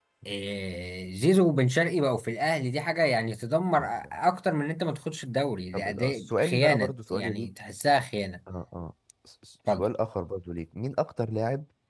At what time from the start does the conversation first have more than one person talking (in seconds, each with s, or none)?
5.7 s